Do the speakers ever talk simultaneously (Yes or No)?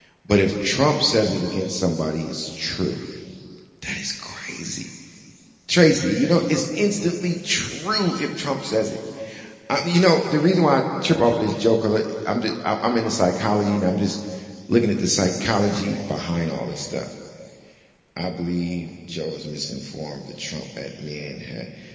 No